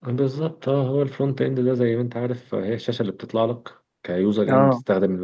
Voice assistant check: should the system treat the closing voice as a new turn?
No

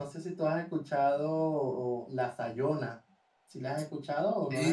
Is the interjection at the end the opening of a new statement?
Yes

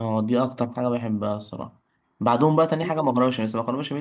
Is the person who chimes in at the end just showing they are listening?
Yes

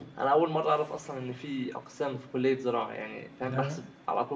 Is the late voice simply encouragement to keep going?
Yes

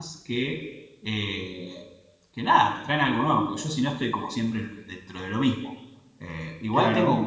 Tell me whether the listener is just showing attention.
Yes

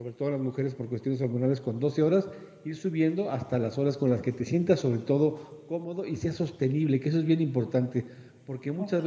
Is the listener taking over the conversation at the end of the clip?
No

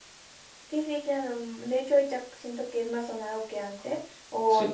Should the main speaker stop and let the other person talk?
No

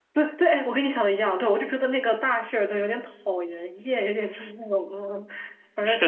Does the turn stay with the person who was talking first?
No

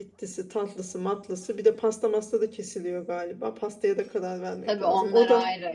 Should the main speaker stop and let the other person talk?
Yes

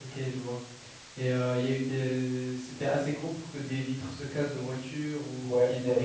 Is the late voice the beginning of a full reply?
Yes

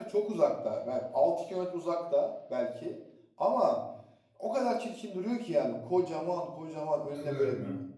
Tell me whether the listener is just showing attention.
Yes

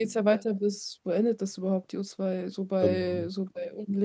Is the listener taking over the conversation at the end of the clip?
No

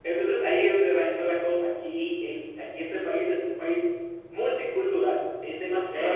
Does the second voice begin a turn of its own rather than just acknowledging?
No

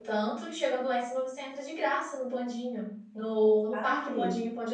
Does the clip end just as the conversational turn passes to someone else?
No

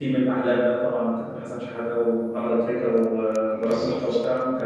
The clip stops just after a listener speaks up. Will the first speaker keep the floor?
Yes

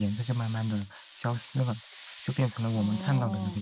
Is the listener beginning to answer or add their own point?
No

